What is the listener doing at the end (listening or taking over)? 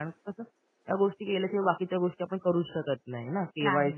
listening